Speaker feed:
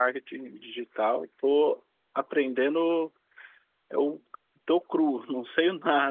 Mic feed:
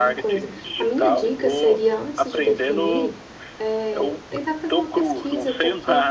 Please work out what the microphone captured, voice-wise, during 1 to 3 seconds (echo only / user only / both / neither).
both